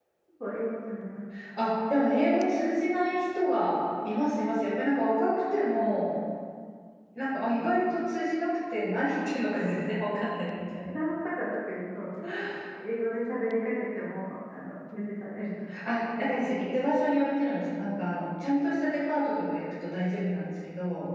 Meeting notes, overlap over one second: none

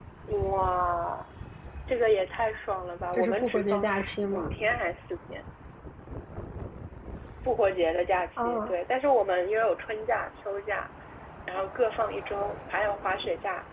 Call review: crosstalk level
present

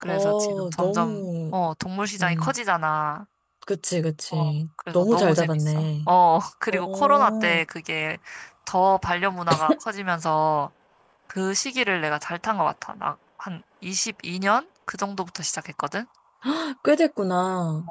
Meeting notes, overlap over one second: present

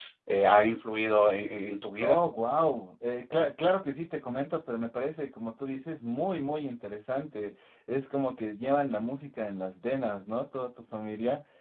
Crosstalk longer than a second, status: none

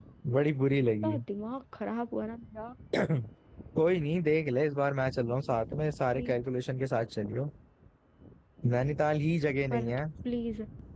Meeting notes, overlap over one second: none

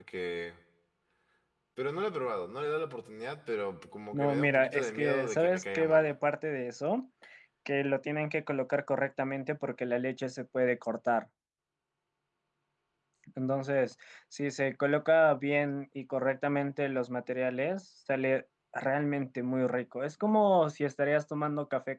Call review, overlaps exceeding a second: present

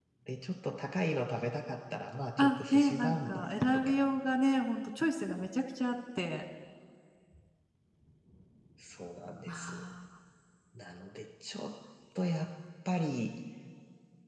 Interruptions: present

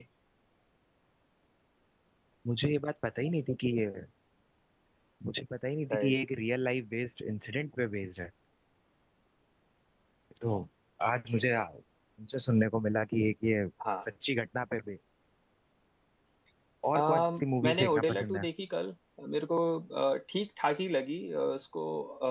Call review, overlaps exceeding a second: present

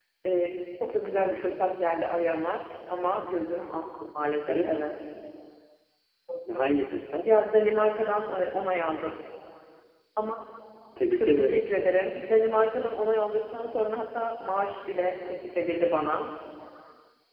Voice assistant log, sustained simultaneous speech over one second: none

